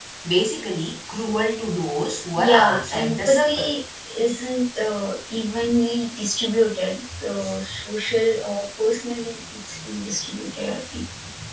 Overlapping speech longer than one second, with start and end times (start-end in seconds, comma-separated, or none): 2.4-3.8